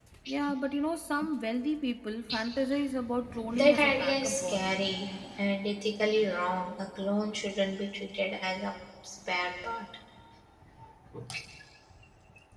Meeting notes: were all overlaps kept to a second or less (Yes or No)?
No